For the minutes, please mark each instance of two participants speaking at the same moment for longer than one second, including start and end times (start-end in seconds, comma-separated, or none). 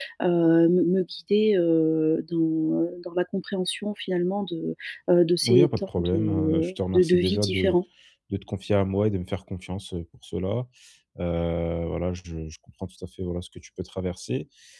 5.5-7.8